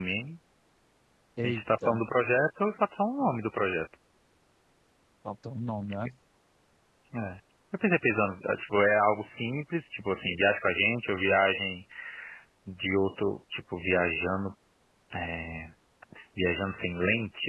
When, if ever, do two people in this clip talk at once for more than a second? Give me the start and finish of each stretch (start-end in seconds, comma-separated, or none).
none